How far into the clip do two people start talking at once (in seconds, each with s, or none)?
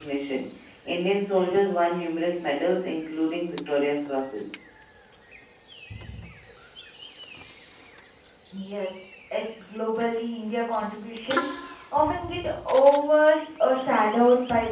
none